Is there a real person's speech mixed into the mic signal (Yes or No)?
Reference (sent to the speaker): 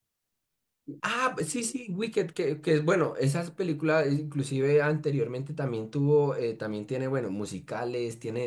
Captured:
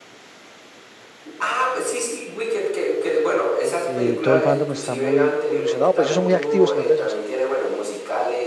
Yes